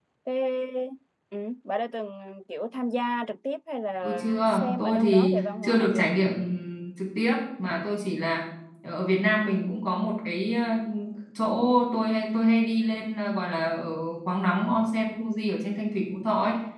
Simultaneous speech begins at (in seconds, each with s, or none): 4.0 s